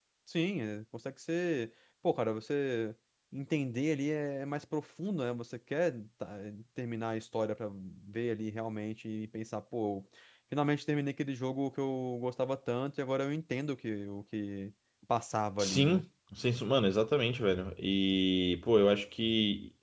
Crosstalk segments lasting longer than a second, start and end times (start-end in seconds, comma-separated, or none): none